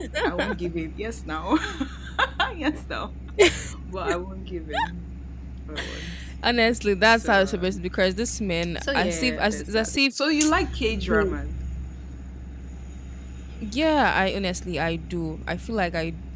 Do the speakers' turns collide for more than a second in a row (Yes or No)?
Yes